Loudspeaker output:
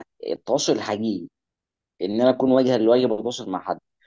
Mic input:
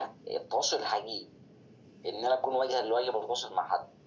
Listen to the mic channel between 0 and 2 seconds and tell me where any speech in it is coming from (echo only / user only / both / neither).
echo only